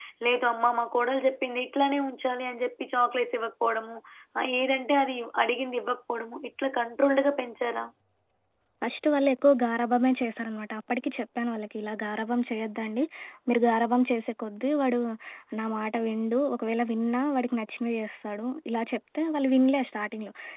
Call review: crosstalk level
none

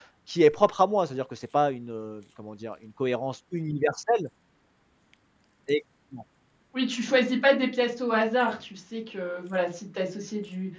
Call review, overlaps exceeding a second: none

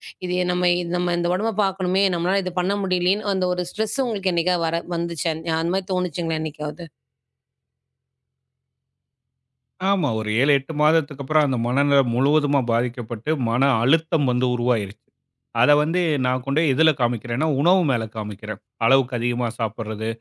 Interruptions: none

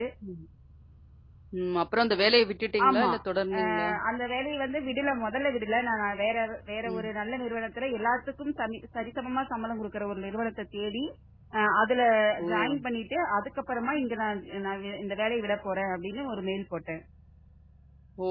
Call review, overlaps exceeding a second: none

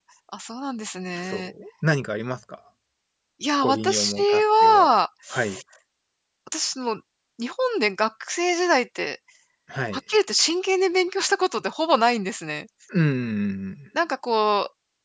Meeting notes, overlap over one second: present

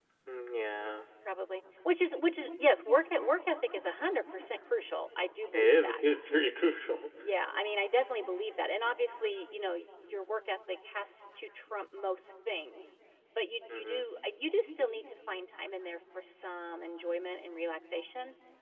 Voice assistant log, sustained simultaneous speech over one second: none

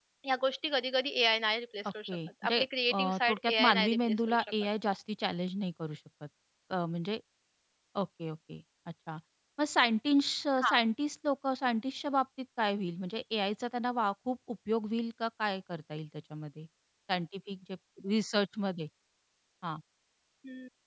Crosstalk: present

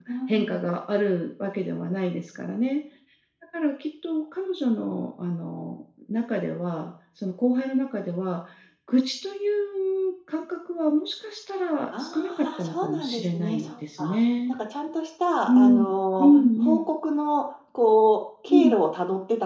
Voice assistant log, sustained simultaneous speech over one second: present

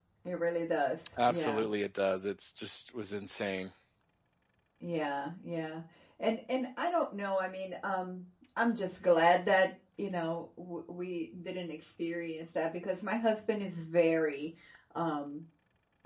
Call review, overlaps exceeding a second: none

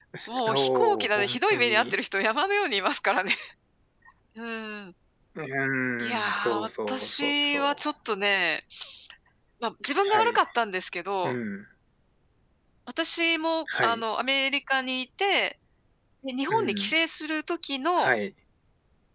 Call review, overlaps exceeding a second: present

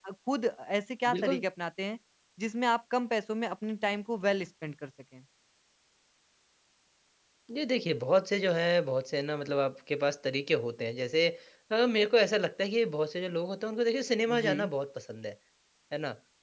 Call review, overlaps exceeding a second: none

